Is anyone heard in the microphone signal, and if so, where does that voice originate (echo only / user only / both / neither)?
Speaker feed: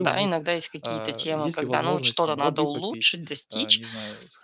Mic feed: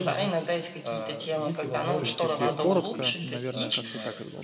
both